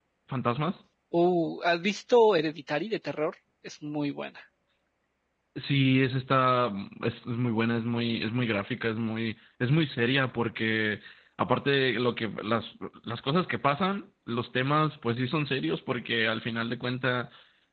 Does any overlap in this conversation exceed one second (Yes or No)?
No